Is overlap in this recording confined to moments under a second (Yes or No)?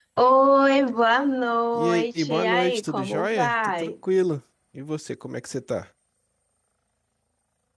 No